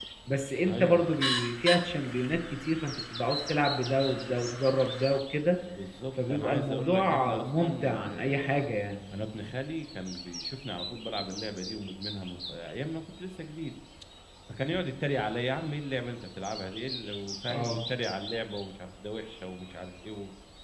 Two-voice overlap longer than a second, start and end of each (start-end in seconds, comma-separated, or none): 6.3-8.7